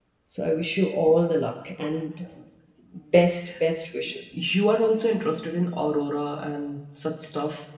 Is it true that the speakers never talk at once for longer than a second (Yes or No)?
Yes